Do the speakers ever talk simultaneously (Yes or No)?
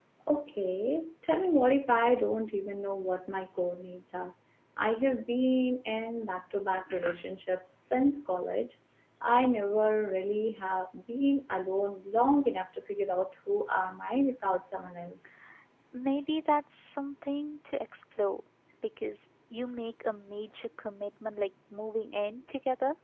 No